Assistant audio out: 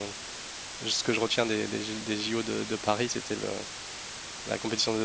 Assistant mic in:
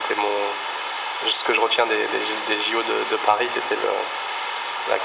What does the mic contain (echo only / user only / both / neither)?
echo only